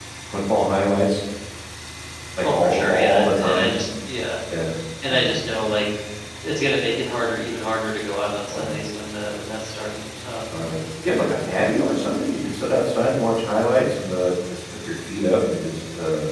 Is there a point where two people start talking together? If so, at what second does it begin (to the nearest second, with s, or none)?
2 s